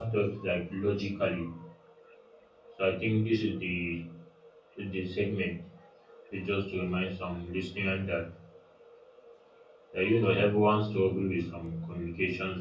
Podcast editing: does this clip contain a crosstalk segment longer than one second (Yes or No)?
No